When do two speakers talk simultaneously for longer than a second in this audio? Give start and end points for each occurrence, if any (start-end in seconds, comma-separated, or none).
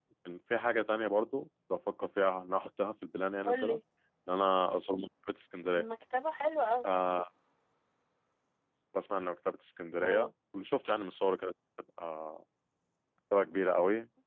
none